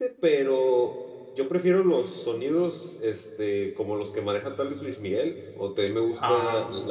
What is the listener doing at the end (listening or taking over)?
listening